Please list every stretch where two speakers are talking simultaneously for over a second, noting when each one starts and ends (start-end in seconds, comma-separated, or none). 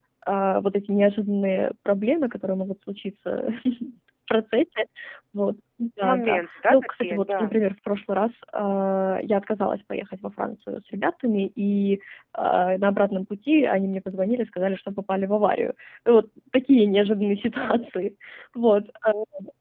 6.0-7.5